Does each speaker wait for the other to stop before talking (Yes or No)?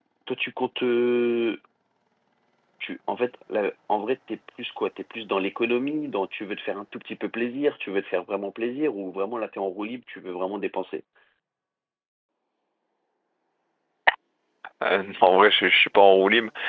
Yes